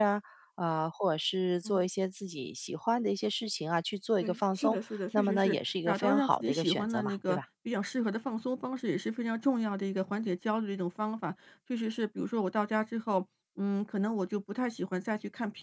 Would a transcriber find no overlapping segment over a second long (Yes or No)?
No